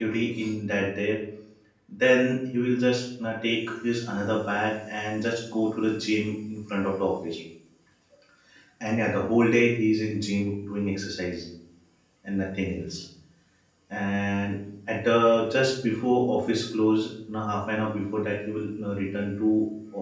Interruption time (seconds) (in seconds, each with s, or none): none